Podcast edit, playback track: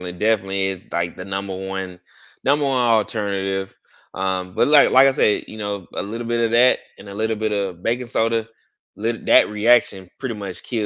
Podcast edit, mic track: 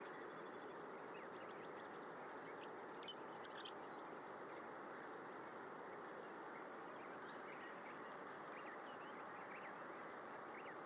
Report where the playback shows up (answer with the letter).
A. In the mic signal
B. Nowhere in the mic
B